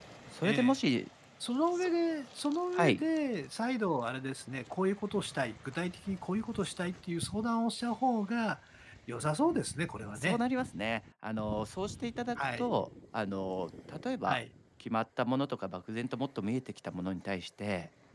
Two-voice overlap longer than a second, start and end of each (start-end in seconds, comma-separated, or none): none